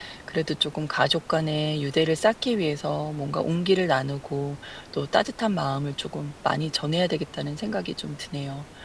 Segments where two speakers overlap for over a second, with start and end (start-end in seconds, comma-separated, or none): none